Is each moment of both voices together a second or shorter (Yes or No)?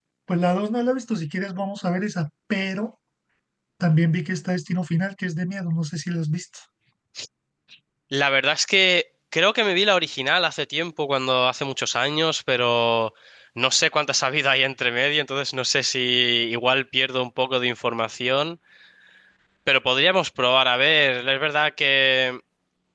Yes